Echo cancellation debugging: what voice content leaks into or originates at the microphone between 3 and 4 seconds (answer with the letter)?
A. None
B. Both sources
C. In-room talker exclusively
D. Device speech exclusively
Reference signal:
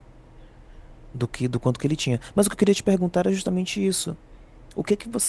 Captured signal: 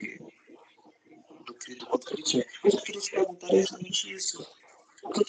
D